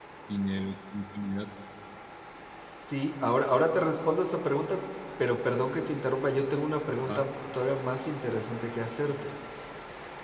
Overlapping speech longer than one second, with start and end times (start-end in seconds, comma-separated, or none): none